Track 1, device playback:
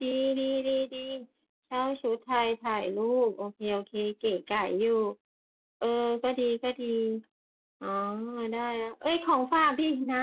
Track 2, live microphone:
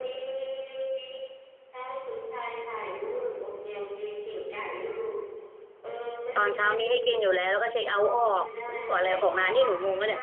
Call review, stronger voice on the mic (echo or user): user